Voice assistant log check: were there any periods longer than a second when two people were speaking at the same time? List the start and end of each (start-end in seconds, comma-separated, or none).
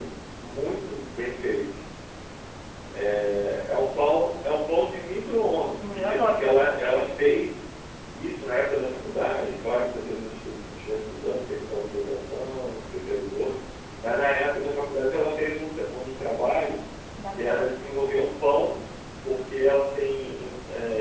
5.8-7.1